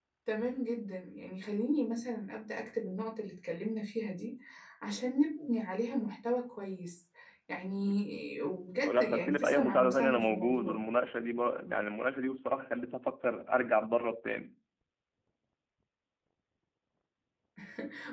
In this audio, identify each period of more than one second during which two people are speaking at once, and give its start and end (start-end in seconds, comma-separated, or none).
8.8-10.8